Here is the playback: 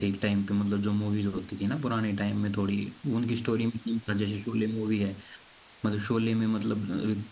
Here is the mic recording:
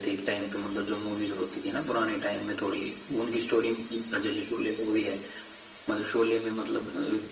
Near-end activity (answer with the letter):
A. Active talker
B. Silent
B